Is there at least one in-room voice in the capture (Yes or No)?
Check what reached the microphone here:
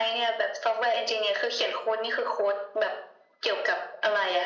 No